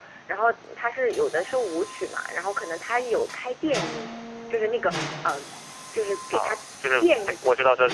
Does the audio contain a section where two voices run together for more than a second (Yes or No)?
No